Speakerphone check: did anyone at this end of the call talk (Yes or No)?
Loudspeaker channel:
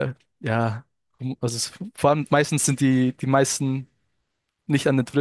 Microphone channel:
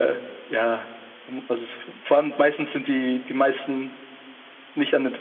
No